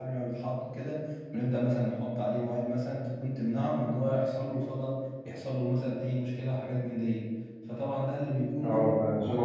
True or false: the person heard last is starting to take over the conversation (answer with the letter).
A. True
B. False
A